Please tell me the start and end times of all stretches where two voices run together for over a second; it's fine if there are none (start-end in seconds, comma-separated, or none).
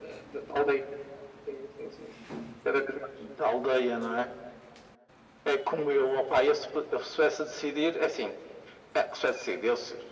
none